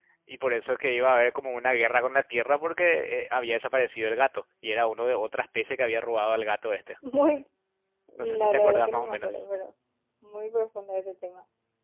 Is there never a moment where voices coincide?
No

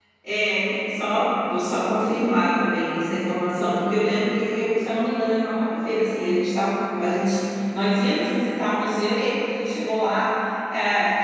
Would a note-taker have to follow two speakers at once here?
No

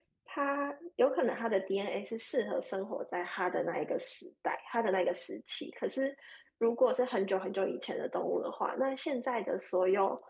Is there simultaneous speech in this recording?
No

